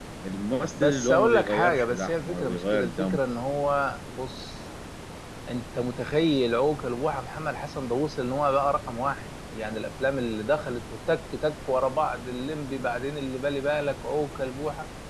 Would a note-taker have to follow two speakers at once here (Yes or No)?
Yes